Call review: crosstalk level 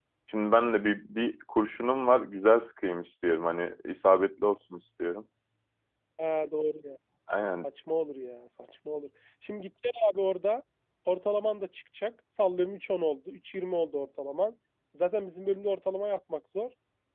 none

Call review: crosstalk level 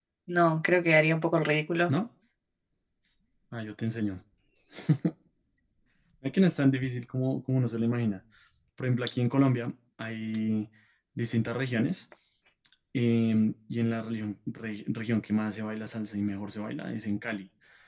none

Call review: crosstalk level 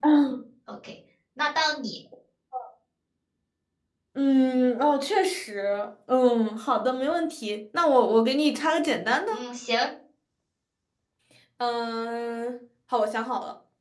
none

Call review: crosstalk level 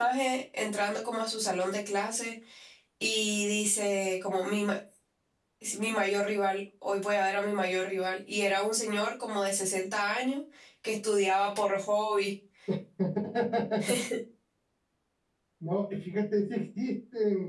none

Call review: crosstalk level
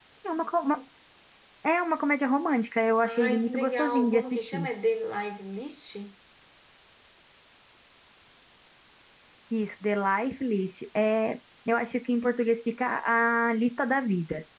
present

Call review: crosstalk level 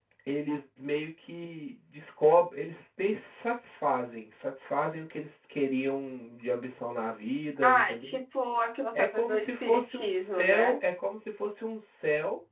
present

